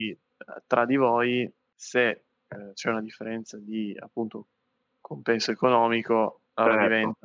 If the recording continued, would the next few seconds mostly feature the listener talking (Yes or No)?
No